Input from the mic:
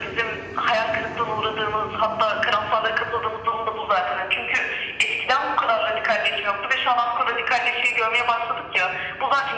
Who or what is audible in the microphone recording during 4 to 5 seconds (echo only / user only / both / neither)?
echo only